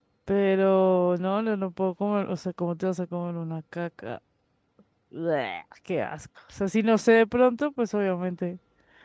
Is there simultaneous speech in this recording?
No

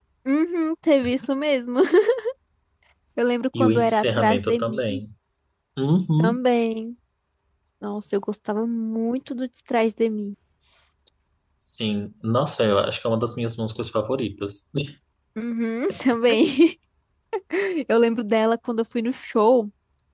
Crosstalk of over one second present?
Yes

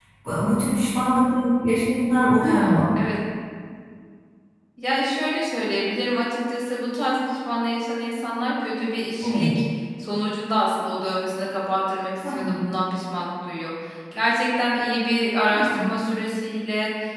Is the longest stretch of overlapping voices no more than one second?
Yes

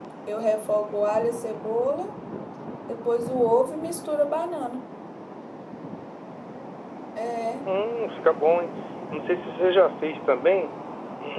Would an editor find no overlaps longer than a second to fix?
Yes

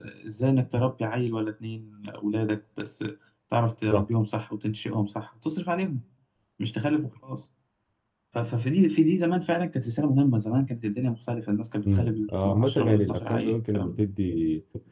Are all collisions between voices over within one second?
No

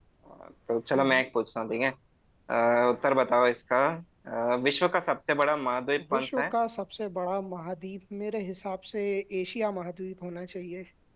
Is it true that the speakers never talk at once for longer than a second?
Yes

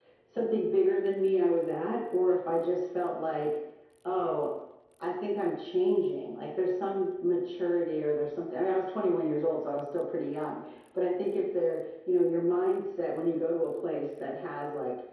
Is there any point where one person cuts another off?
No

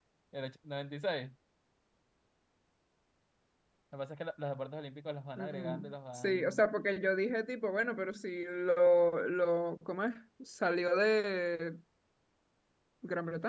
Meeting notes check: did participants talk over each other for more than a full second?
Yes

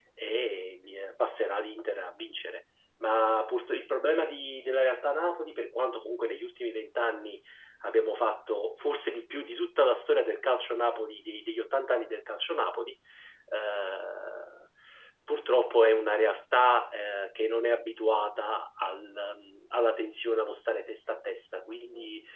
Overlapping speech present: No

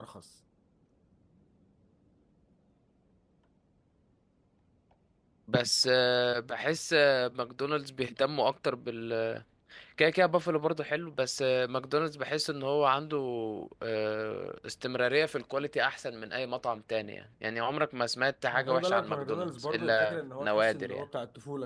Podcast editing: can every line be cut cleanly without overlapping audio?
No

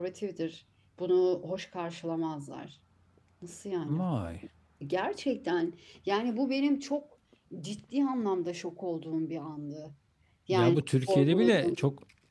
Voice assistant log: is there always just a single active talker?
No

